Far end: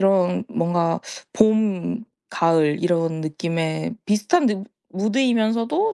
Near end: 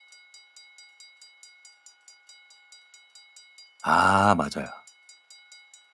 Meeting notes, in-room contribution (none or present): present